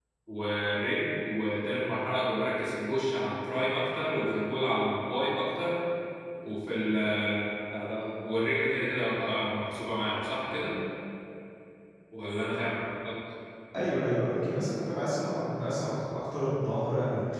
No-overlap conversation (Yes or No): Yes